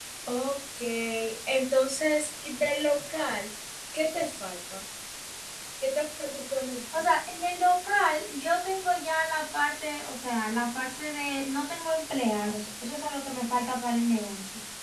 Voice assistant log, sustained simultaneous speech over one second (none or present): none